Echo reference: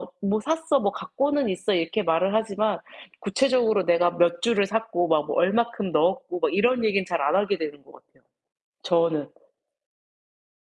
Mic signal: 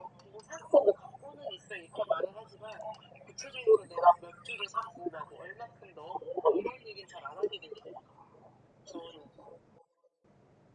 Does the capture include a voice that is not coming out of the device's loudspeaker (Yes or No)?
No